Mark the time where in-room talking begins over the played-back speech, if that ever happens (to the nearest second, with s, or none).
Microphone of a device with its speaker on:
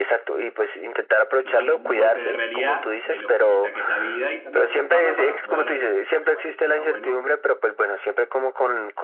1 s